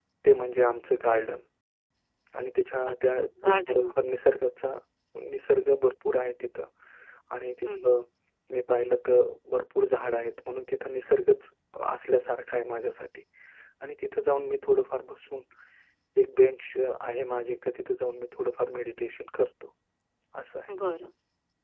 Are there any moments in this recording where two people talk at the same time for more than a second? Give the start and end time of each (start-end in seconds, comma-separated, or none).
2.9-4.1